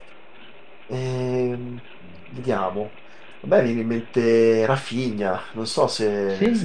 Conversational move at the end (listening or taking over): taking over